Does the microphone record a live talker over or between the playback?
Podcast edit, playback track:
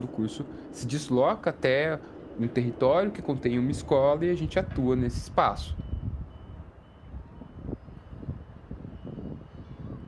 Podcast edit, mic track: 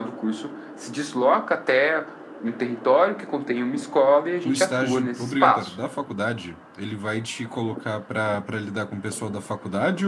Yes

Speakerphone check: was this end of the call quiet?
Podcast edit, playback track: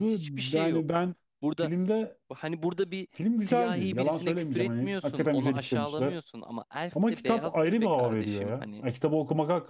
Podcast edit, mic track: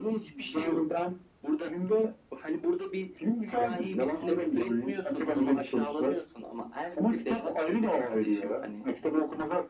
No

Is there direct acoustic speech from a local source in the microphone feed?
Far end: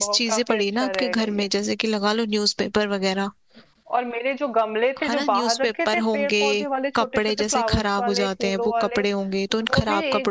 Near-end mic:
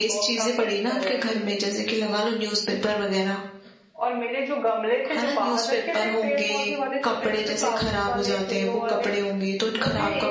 No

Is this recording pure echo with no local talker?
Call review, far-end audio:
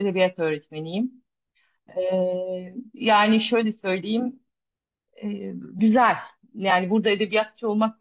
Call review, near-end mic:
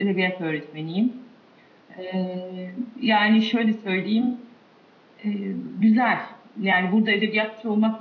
Yes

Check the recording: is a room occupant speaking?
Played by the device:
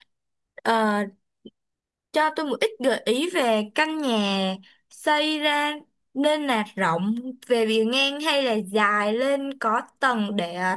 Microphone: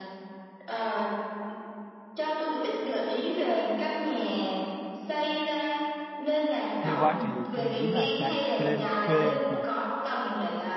Yes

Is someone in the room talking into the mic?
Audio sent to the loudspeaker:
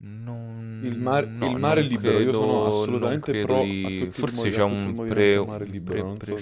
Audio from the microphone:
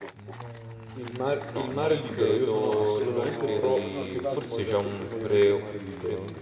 Yes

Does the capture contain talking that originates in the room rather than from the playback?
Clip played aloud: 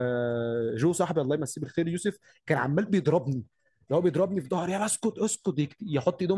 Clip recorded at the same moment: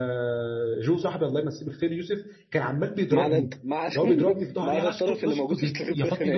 Yes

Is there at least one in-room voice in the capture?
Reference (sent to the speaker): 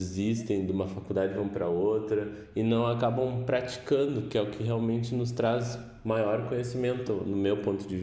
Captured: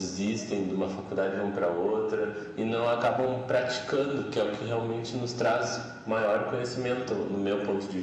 No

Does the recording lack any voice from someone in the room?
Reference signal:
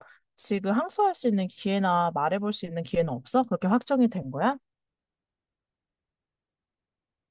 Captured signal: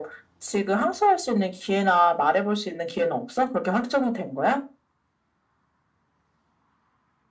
Yes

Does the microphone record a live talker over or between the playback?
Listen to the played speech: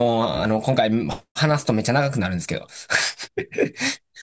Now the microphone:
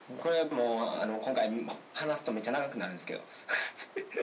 No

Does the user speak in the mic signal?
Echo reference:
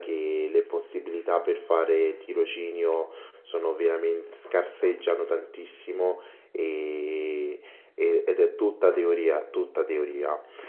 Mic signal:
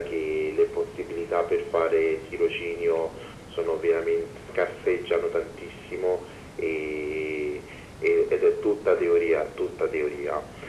No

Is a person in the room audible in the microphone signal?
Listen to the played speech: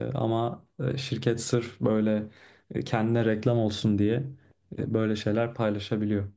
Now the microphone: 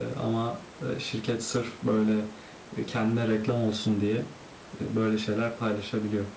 No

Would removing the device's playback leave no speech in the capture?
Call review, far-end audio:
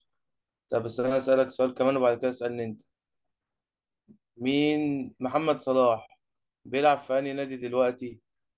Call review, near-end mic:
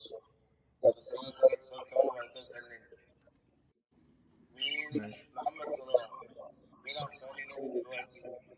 No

